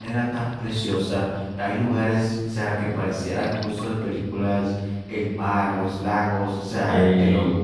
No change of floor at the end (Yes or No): Yes